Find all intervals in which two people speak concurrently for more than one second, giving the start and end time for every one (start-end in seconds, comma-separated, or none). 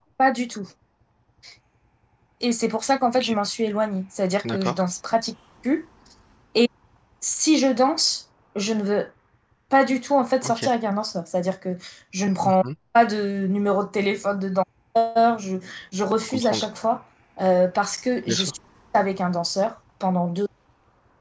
none